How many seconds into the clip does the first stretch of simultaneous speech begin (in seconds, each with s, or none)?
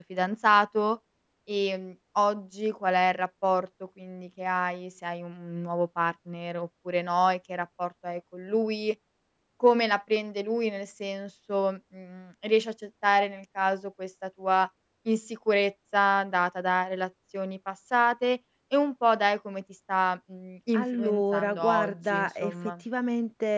20.7 s